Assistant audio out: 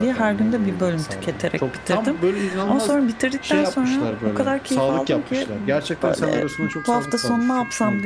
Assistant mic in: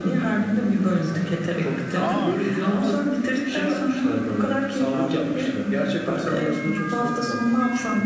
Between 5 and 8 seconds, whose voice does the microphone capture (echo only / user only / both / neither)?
echo only